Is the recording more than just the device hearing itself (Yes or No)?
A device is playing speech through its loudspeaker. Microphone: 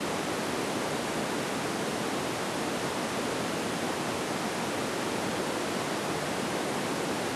No